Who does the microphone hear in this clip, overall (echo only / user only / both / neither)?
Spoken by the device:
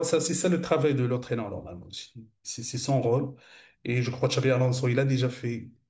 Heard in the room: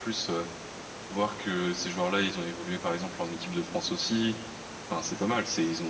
user only